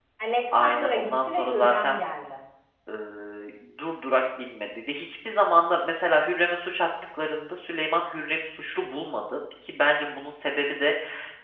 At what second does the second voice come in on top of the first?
0.5 s

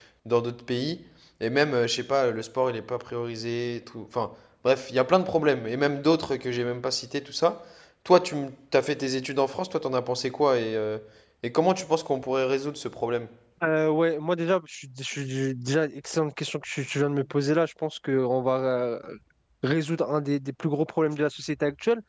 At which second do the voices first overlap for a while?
none

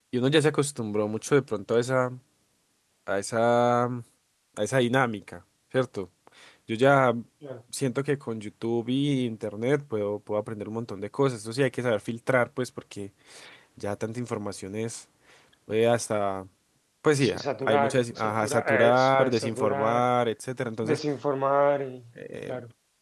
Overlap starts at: 17.2 s

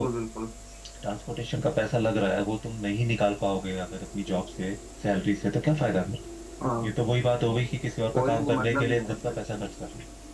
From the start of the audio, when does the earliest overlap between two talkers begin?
8.1 s

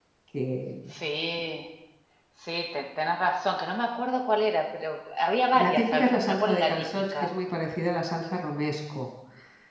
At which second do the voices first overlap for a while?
5.5 s

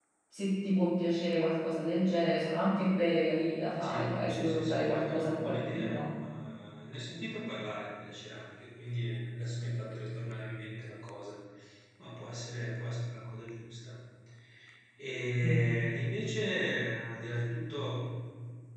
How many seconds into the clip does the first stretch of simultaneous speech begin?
3.8 s

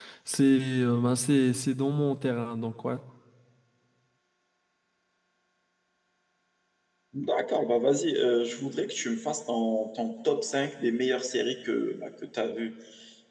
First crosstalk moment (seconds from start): none

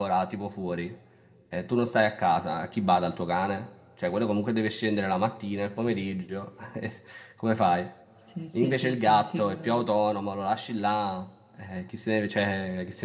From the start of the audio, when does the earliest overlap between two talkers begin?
8.5 s

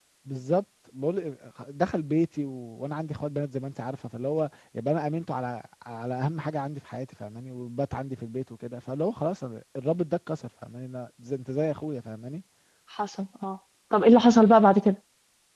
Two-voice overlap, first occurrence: none

